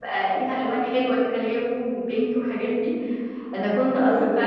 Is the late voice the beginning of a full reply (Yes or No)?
No